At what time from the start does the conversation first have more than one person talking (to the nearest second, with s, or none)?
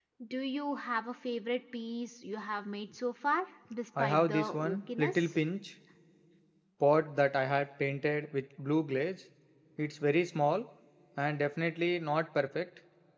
4 s